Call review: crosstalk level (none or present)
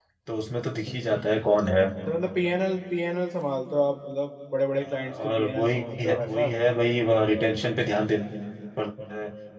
present